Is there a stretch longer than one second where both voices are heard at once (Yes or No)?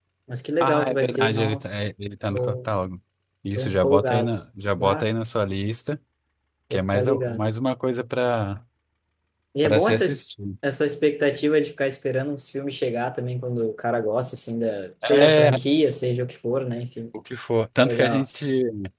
Yes